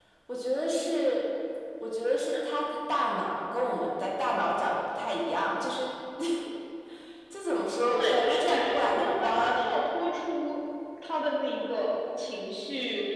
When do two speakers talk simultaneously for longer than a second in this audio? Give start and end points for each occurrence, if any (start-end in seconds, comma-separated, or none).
7.9-9.6